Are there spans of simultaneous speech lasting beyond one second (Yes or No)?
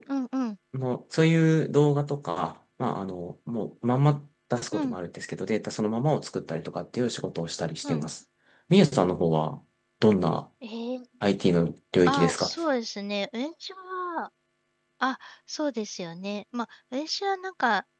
No